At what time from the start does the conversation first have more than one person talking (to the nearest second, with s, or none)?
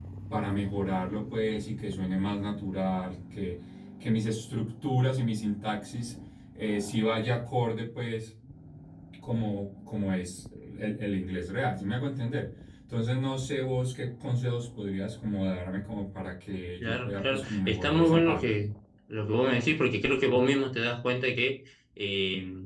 17 s